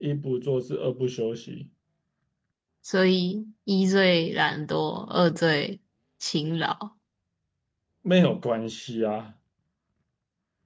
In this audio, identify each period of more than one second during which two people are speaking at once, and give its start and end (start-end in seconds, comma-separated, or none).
none